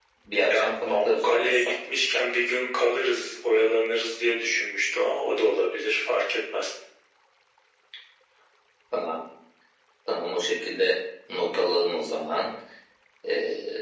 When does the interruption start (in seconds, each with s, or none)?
0.5 s